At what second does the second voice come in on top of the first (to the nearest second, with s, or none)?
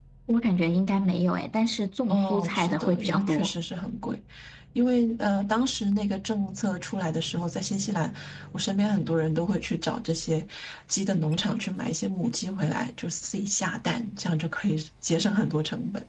2 s